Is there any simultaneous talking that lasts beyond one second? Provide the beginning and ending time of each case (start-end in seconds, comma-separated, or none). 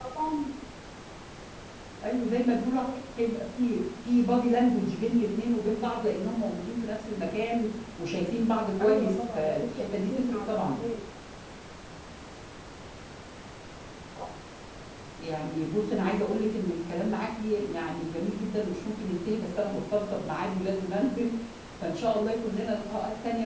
8.8-10.8